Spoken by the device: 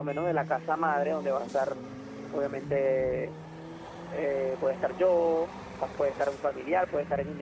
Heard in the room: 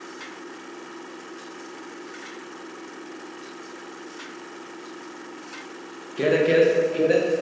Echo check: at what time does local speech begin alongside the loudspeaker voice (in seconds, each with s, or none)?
6.1 s